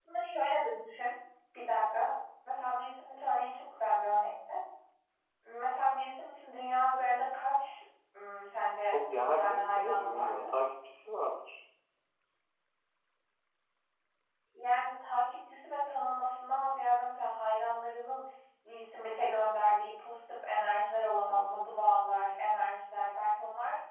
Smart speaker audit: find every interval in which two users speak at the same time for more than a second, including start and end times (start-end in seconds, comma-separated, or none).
8.8-10.5